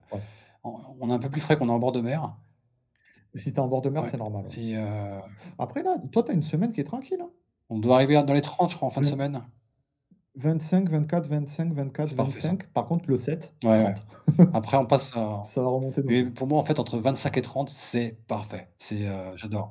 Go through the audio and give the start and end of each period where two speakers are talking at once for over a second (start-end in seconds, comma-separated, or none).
none